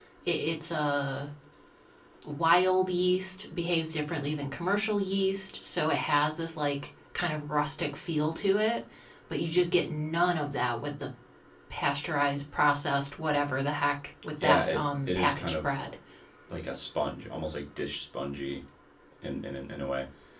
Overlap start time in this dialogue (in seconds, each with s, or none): 14.4 s